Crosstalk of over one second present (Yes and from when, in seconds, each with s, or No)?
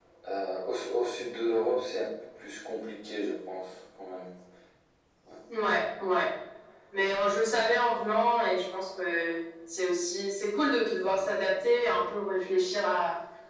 No